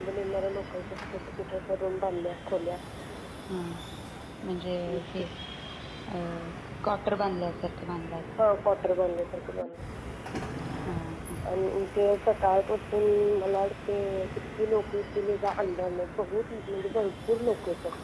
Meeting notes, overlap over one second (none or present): none